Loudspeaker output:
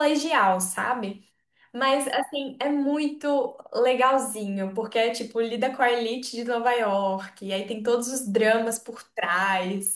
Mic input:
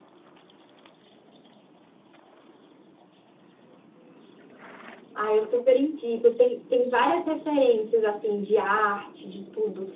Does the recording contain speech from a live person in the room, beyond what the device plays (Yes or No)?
Yes